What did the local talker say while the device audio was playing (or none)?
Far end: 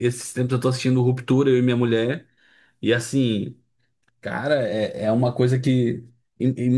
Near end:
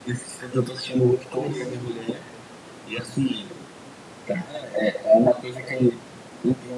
Sim, sim.